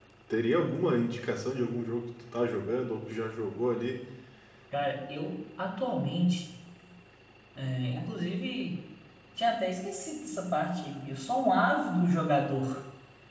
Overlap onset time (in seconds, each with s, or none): none